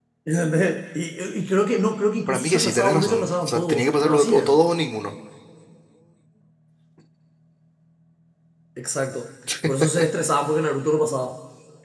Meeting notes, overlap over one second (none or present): present